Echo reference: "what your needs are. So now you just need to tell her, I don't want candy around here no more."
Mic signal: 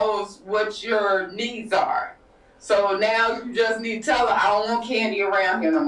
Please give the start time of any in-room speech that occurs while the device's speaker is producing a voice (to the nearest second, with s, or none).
none